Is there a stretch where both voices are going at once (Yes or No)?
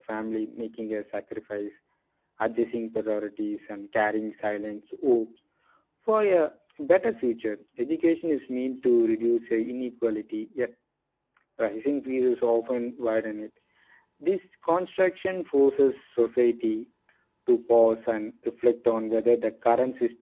No